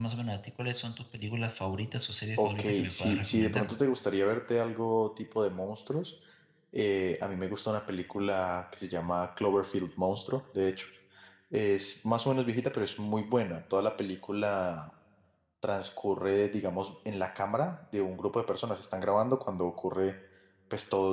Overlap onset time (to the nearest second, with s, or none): 2 s